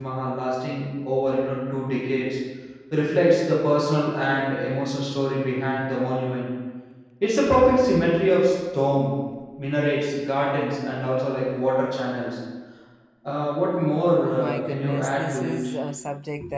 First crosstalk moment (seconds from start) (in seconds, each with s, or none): 14.2 s